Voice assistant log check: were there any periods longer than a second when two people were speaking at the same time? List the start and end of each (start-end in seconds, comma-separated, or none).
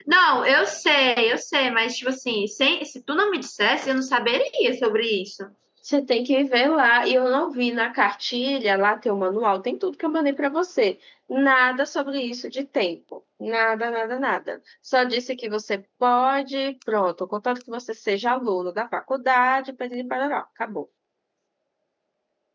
none